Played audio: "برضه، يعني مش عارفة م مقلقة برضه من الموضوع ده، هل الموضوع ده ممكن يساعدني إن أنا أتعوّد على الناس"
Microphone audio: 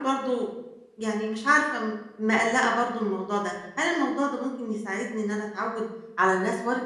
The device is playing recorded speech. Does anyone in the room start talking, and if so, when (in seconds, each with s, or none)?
none